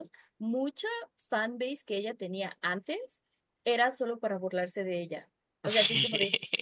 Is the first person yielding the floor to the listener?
No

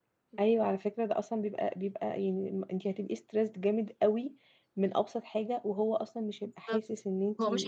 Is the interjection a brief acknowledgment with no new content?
No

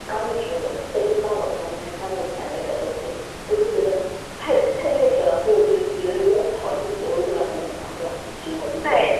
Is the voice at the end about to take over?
Yes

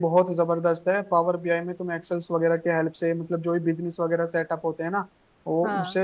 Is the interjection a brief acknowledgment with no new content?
Yes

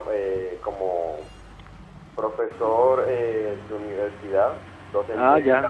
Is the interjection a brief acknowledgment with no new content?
Yes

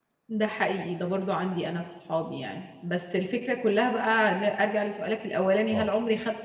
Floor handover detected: No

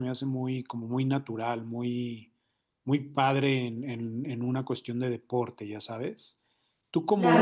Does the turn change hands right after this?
Yes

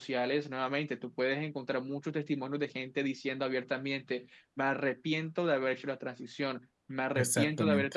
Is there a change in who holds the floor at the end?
No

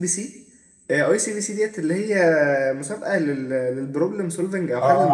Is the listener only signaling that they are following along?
No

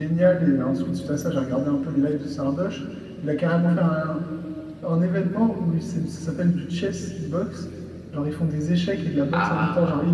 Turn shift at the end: No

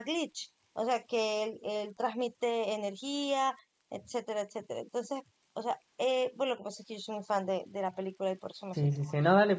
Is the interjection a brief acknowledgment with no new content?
No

